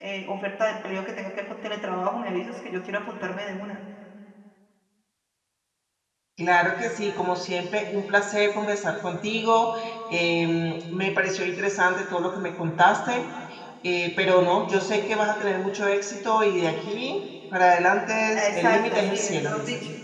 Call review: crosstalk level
present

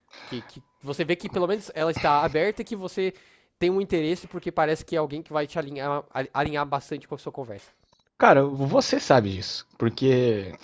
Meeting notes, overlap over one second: none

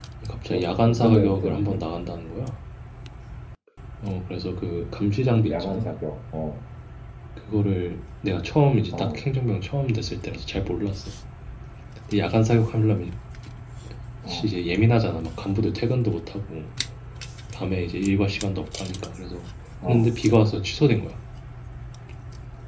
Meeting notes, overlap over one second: present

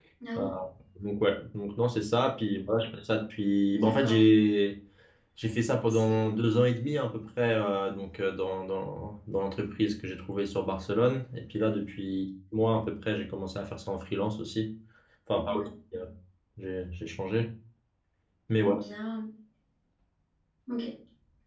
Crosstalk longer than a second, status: none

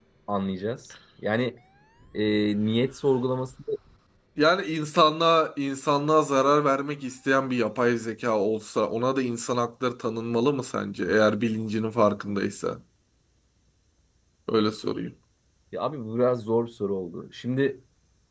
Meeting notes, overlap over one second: none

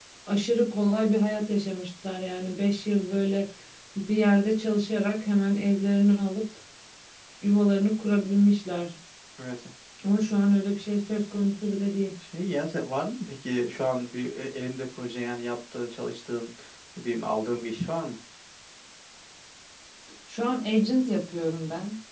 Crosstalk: none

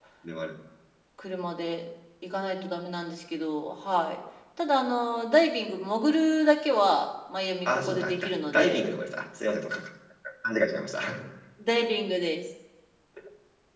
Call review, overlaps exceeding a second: present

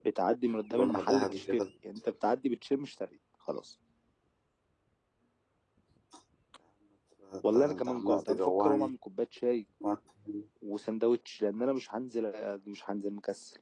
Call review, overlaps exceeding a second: present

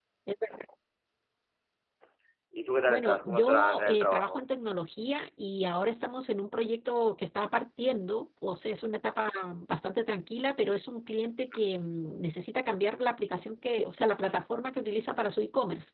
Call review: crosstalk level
present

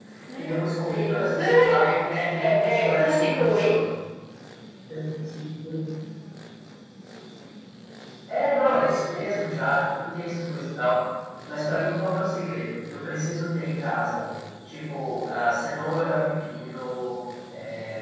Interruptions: present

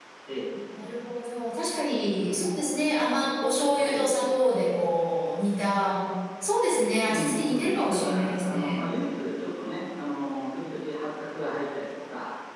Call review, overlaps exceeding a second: present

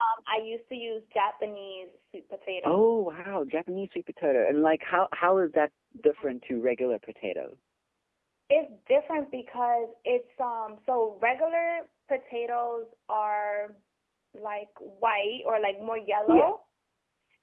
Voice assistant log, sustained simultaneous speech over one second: none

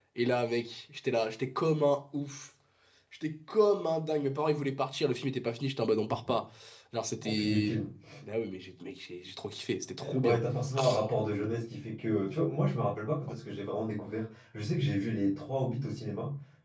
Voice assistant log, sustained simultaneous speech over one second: none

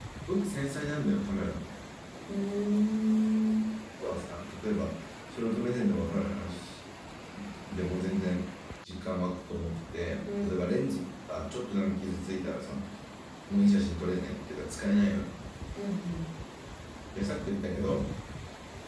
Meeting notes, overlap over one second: none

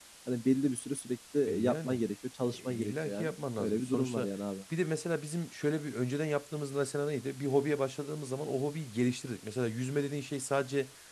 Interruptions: present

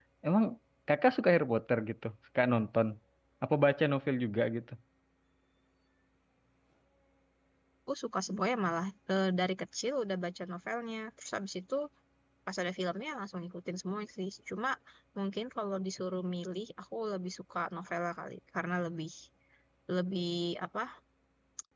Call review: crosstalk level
none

